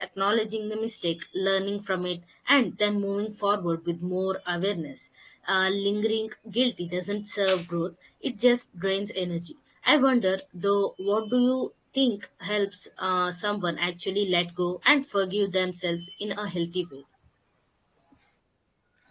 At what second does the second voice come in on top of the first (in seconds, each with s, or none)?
none